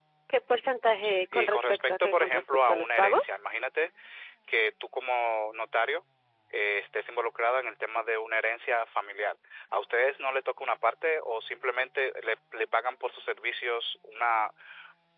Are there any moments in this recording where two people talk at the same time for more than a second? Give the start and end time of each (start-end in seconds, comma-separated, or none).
1.3-3.3